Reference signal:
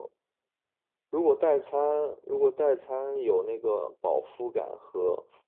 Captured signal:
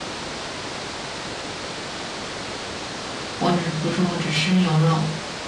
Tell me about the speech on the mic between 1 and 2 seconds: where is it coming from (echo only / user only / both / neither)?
neither